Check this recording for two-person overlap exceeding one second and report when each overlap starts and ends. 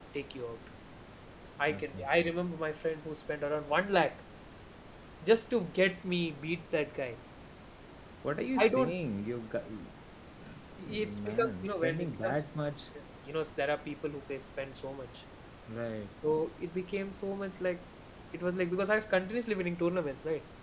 10.8-12.4

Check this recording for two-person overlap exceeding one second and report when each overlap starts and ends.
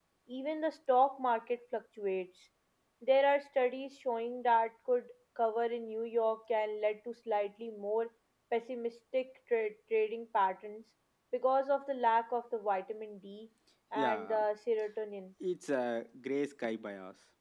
none

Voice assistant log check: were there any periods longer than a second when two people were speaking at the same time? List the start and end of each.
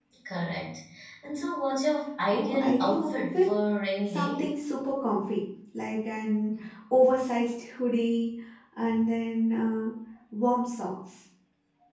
2.3-3.5

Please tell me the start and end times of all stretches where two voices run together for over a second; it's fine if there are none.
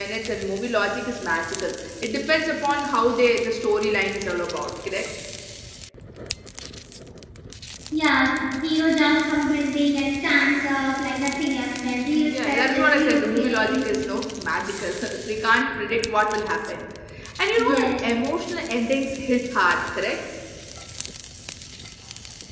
12.3-13.9

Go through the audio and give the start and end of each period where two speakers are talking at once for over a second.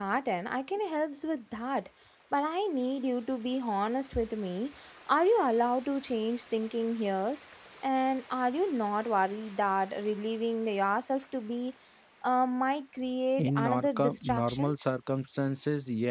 13.4-14.9

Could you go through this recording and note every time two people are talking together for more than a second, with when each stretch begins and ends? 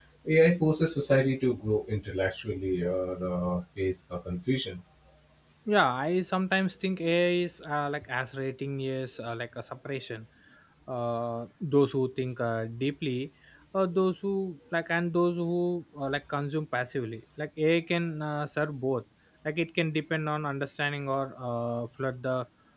none

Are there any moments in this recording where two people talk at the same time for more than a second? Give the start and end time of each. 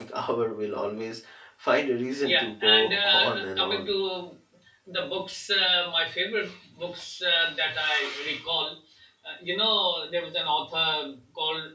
2.2-3.9

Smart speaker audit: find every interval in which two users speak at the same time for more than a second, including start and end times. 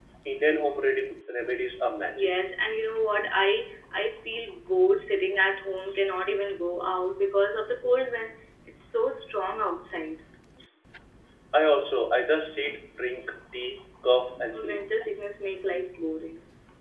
none

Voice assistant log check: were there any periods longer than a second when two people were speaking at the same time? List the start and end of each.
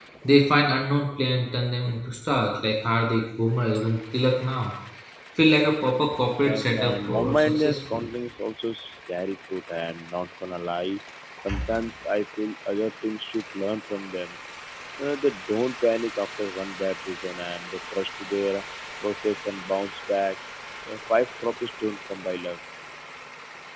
6.4-8.0

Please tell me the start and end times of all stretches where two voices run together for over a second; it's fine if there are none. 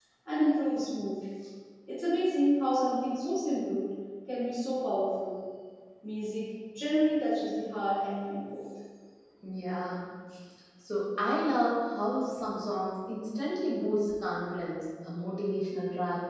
none

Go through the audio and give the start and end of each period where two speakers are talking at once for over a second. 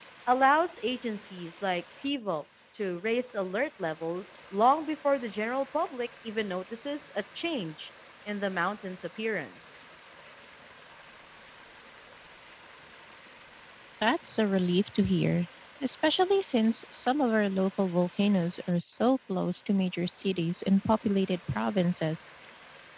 none

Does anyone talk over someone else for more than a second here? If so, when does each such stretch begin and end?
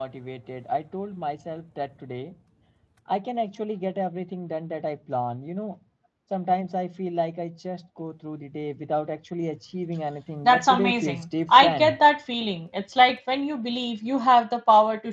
10.4-12.0

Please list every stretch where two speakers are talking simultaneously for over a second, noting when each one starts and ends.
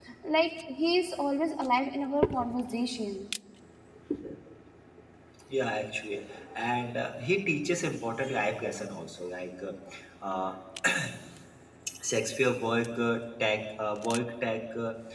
none

